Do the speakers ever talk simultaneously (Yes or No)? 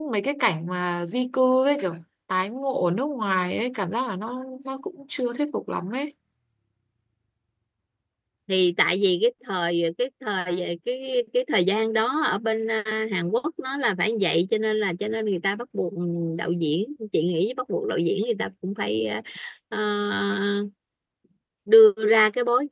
No